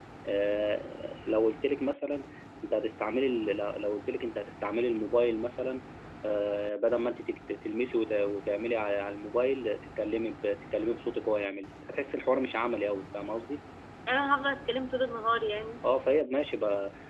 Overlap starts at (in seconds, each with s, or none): none